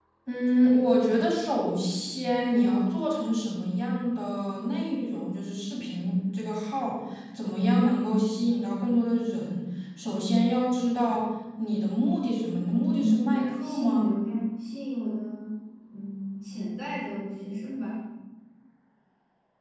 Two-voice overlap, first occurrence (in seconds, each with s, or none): 12.9 s